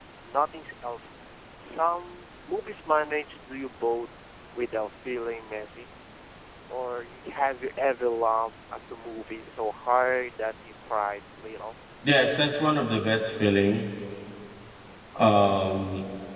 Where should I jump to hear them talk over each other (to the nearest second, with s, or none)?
none